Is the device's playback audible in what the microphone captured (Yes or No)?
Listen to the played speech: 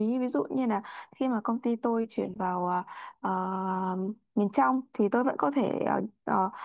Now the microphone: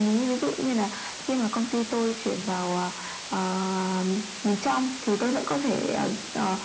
Yes